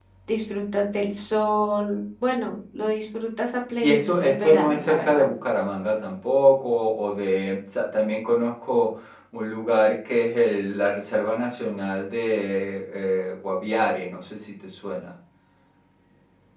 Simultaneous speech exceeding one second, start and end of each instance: 3.8-5.2

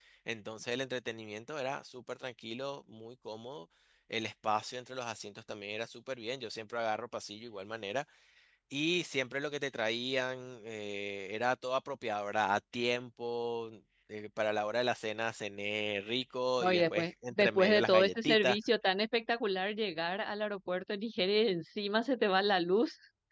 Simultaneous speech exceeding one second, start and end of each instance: 16.6-18.6

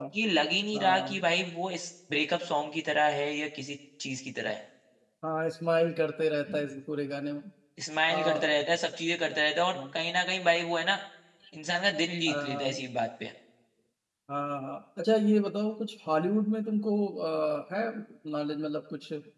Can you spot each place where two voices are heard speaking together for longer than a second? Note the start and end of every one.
none

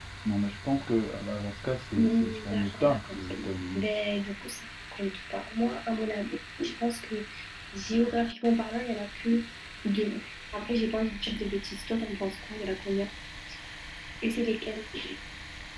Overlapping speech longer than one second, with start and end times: 2.0-3.2

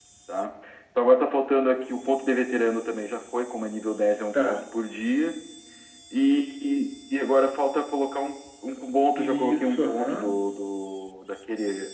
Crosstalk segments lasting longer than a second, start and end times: 9.2-10.4

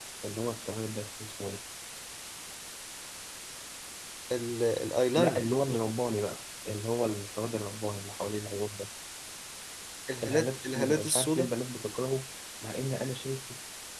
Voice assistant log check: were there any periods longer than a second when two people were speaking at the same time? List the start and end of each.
10.2-11.5

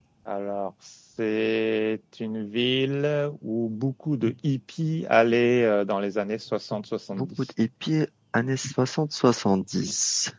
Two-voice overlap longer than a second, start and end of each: none

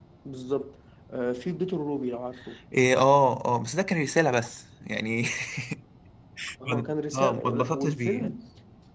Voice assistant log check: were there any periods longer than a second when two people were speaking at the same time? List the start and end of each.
6.6-8.4

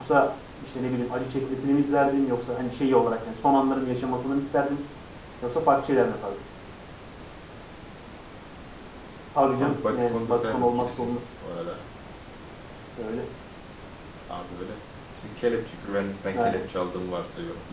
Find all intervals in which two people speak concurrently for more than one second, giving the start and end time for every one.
9.6-11.1

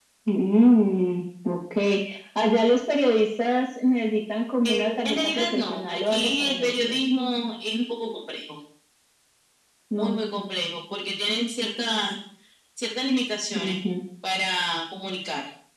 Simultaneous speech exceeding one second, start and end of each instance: 4.6-7.0

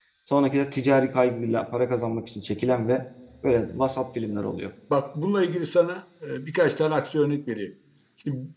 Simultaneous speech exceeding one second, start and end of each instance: none

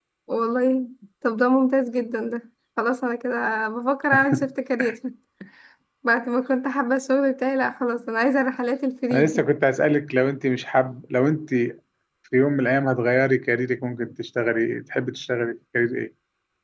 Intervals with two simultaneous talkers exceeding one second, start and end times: none

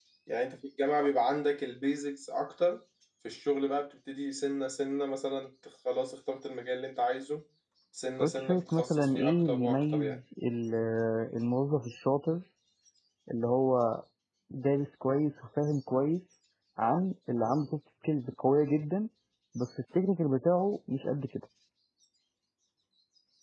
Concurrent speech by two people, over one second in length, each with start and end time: 8.2-10.2

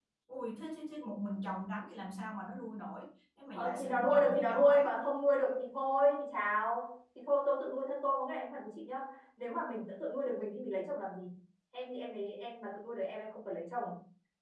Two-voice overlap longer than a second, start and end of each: 3.5-4.8

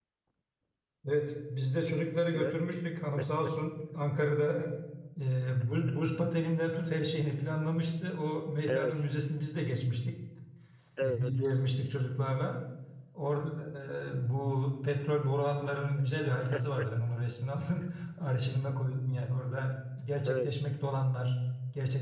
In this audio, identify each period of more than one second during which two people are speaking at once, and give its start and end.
none

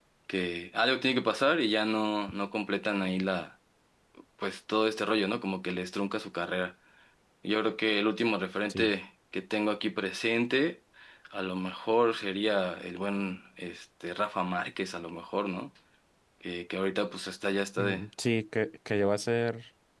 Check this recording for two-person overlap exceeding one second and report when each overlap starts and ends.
none

